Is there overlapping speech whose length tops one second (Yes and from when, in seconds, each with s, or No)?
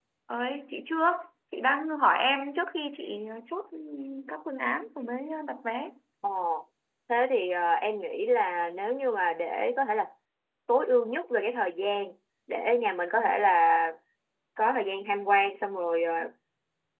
No